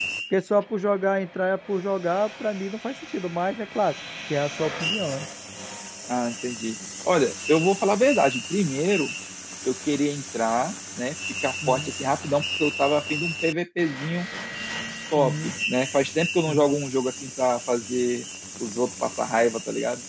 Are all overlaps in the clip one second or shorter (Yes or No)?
Yes